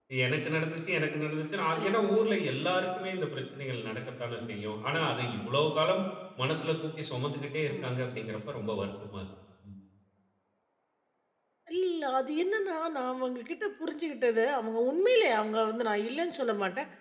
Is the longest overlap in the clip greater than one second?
No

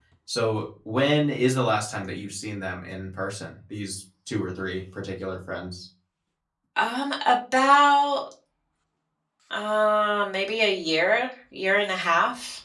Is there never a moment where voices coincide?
Yes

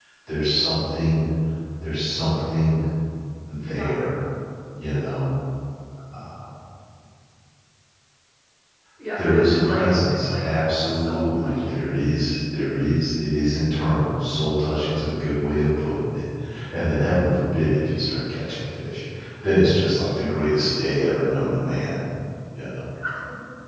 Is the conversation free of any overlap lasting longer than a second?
No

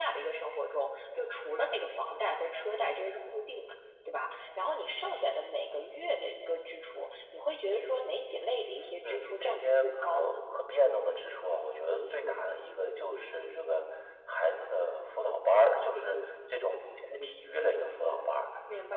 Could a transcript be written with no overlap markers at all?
No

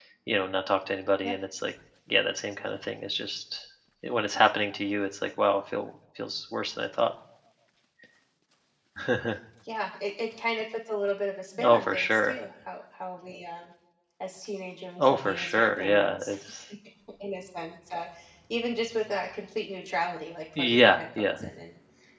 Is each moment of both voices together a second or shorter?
No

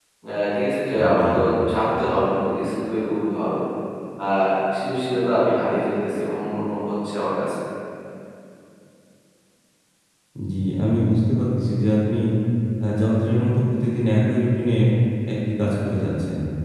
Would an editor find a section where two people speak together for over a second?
No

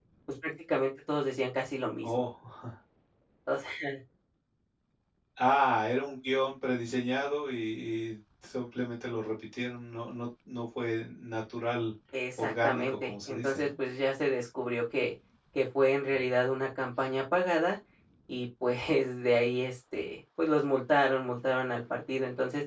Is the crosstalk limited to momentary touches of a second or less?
No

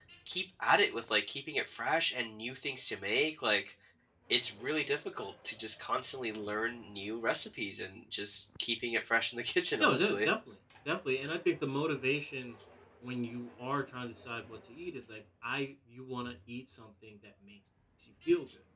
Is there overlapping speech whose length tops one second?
No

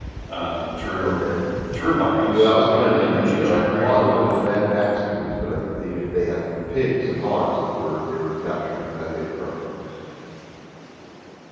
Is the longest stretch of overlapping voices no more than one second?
No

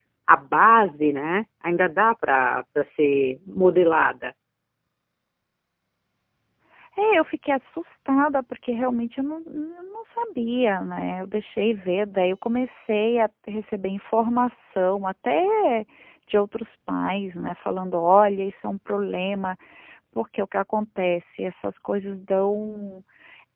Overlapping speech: No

